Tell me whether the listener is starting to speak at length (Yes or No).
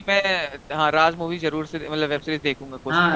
Yes